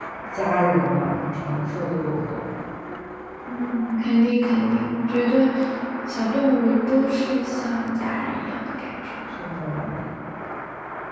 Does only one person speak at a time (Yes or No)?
Yes